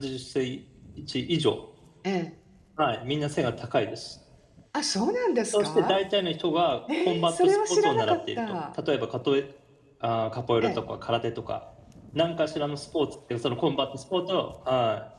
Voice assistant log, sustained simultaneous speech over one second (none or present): present